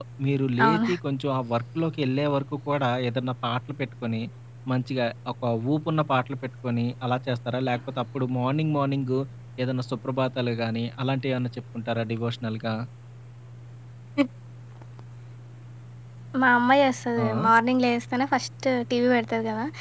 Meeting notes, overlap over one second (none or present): none